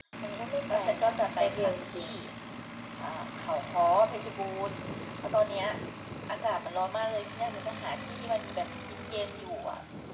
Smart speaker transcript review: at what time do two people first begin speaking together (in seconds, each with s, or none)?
0.7 s